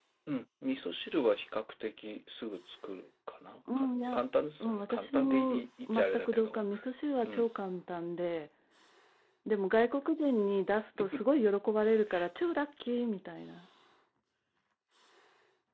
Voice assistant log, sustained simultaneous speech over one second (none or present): present